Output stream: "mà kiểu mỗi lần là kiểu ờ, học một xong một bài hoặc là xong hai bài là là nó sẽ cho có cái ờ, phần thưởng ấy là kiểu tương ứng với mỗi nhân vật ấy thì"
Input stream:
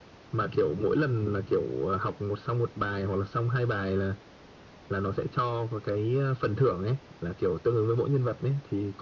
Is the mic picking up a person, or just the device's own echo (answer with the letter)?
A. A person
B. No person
B